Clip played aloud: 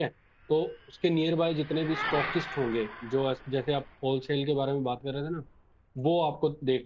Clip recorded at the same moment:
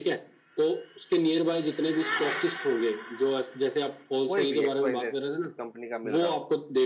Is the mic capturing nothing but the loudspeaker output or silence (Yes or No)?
No